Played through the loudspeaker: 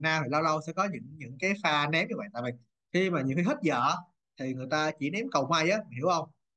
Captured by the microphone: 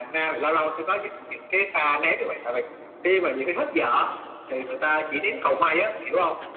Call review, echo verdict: present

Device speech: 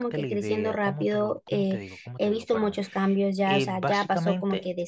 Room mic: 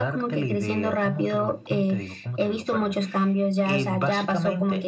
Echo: present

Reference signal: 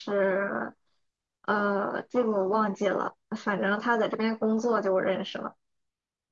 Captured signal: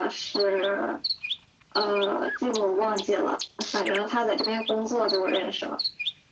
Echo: present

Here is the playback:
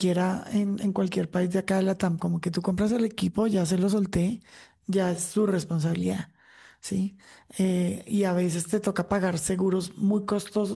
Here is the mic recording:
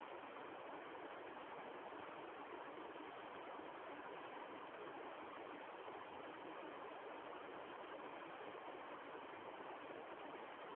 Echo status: none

